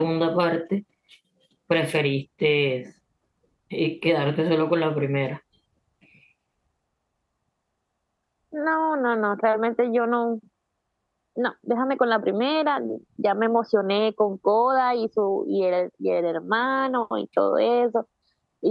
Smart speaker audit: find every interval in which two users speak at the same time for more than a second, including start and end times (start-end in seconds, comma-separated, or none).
none